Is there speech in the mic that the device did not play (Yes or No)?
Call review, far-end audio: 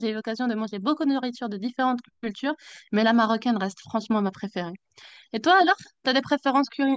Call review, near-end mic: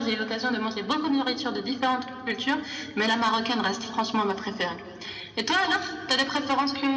No